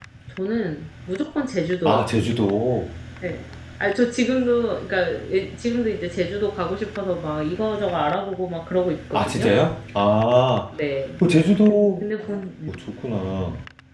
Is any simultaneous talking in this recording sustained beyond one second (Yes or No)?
No